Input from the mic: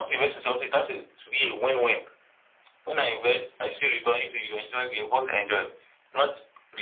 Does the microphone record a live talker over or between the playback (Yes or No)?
No